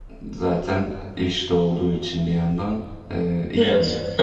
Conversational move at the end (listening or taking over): taking over